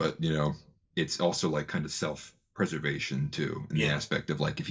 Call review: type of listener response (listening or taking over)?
listening